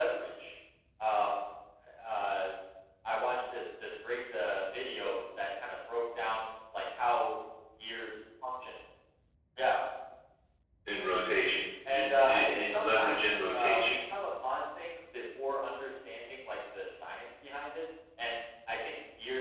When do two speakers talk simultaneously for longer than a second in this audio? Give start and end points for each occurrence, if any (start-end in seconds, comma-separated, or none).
11.9-14.0